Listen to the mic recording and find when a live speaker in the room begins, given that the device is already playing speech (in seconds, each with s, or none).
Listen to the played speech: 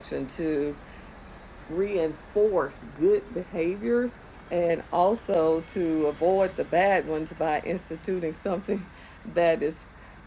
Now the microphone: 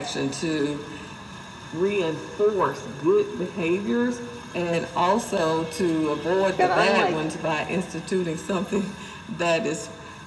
6.6 s